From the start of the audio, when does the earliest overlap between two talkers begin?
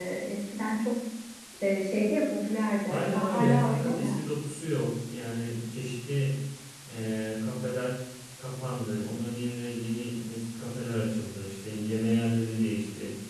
2.9 s

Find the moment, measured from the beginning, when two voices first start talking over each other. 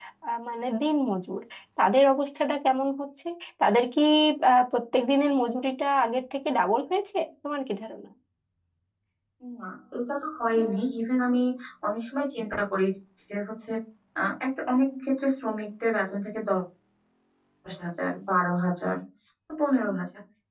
none

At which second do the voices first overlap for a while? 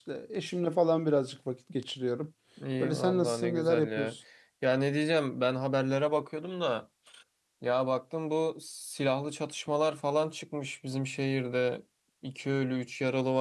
2.8 s

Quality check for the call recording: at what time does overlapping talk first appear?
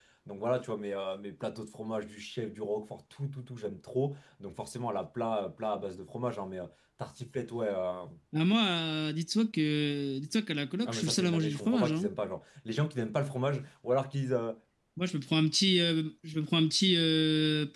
10.8 s

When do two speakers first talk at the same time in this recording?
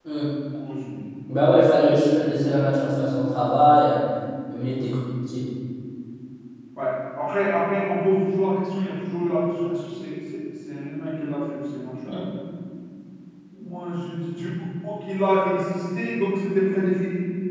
none

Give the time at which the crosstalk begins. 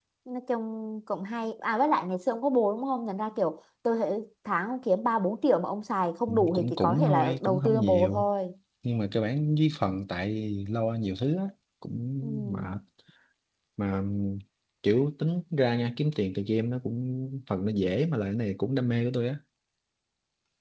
6.5 s

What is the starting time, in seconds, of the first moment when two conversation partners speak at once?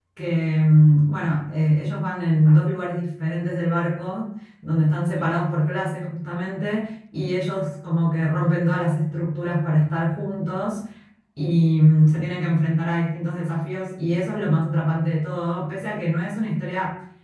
none

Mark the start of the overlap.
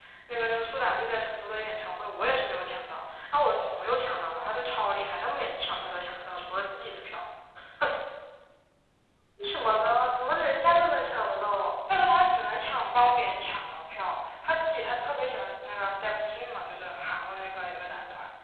none

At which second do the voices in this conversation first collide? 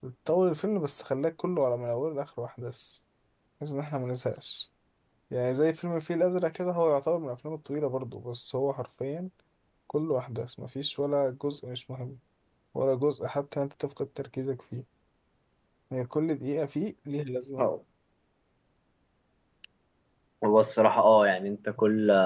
none

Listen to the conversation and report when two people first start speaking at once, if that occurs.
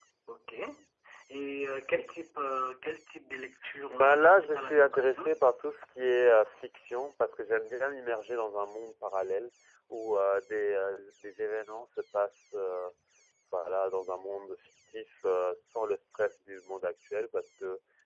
3.6 s

